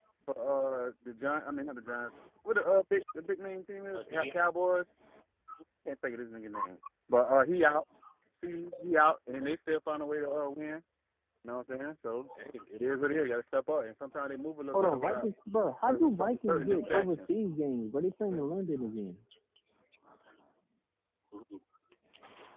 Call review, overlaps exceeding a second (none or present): present